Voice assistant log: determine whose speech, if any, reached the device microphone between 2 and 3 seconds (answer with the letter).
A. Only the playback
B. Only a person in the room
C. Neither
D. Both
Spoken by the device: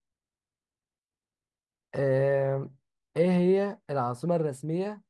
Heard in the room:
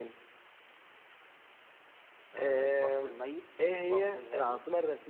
D